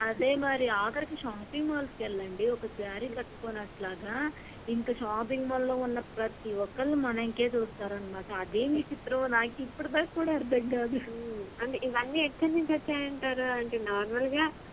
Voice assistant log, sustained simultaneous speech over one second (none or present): none